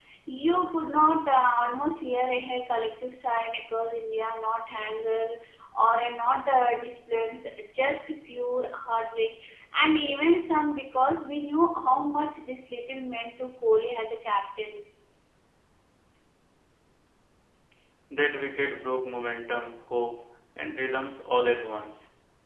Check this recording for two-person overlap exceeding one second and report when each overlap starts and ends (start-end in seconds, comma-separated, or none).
none